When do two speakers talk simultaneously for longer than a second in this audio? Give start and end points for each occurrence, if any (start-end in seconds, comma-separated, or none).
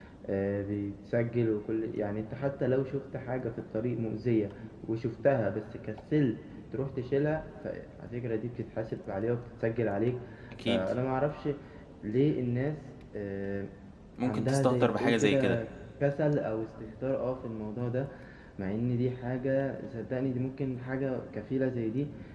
14.2-15.6